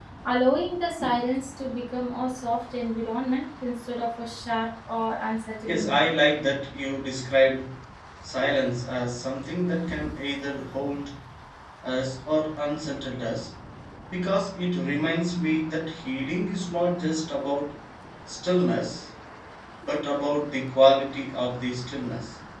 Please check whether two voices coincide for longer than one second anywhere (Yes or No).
No